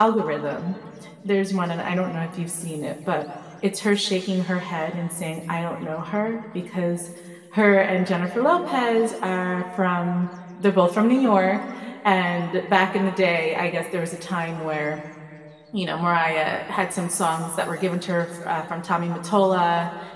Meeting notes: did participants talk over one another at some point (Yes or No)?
No